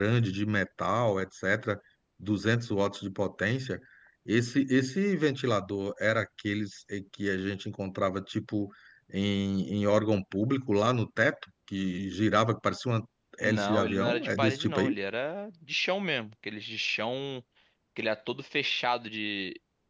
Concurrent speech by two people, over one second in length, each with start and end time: 13.4-14.9

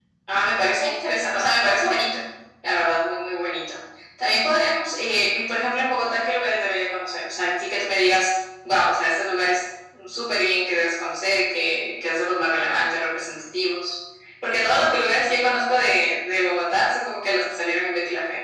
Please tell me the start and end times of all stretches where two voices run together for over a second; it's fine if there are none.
none

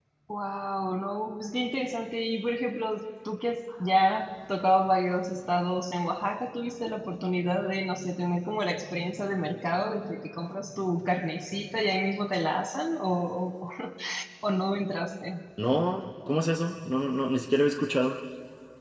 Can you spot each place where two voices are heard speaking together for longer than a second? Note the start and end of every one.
none

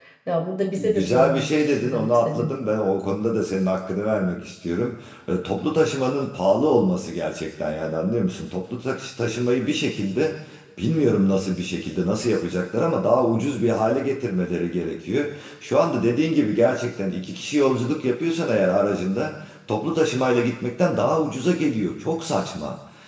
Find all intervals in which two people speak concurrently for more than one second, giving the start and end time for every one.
0.8-2.5

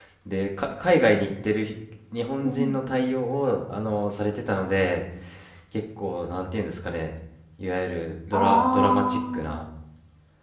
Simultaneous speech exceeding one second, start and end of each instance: 8.3-9.6

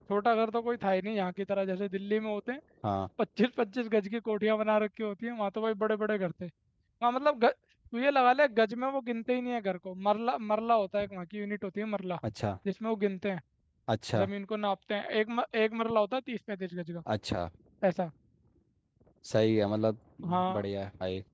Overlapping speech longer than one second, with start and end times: none

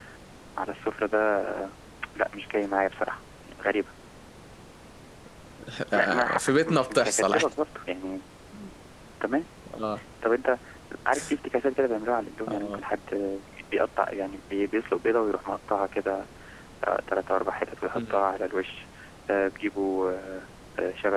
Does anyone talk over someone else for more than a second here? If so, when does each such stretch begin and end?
5.9-7.5

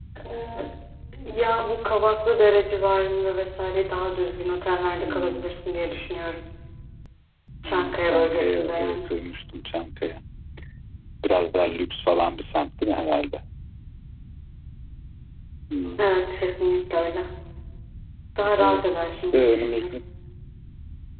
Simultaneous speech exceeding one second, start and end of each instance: 7.6-9.0, 18.6-20.0

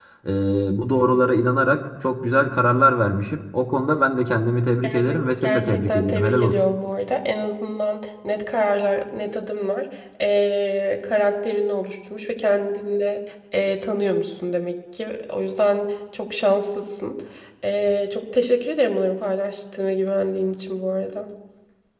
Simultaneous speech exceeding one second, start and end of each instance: 4.8-6.6

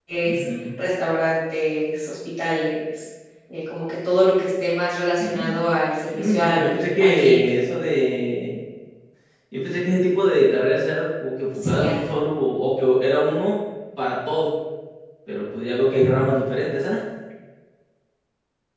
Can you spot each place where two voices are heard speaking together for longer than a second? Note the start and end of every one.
6.1-7.4

